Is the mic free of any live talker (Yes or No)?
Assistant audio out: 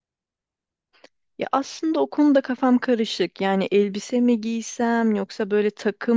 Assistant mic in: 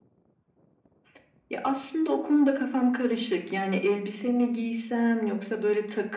Yes